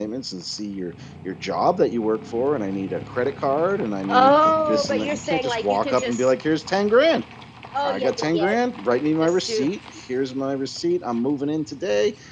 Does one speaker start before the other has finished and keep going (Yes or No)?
Yes